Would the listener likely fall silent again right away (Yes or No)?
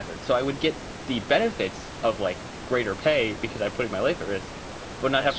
Yes